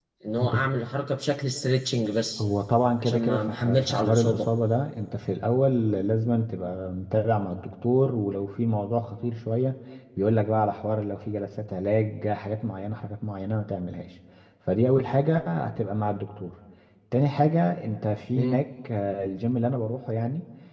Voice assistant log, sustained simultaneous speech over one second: present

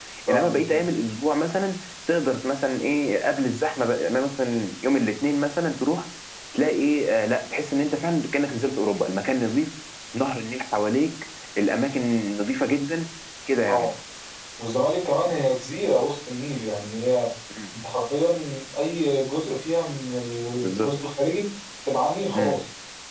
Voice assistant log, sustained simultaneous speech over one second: none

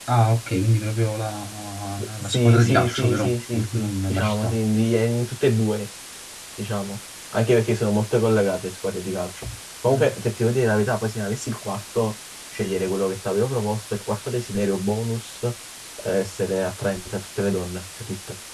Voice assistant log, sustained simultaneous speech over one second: present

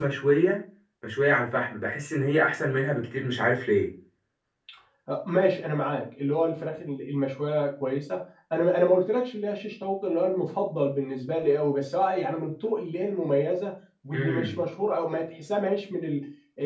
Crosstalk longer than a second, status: none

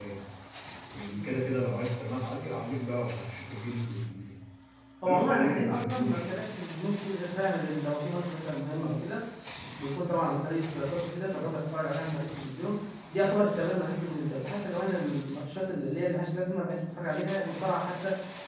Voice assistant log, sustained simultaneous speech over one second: present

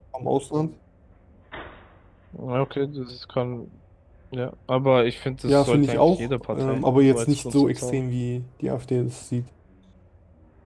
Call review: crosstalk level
present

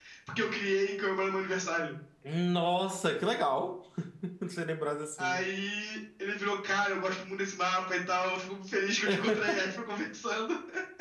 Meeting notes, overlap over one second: none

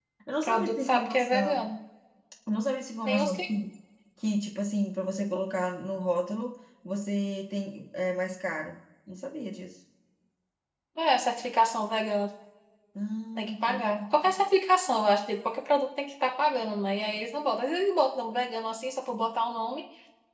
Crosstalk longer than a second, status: present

